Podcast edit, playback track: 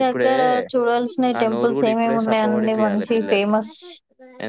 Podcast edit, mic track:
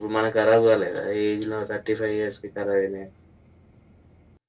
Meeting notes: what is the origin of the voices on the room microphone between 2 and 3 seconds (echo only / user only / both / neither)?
user only